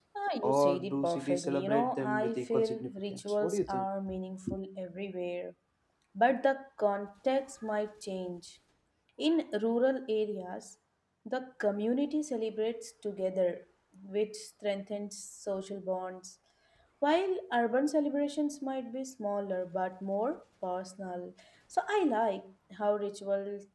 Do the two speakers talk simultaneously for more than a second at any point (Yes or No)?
Yes